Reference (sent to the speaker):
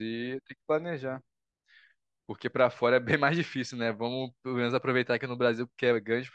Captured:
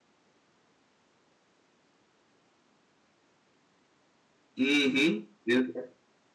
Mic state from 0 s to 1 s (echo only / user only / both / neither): neither